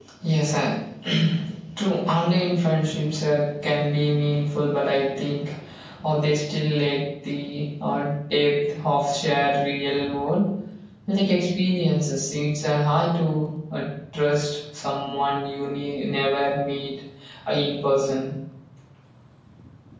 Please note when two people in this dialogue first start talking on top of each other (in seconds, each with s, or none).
none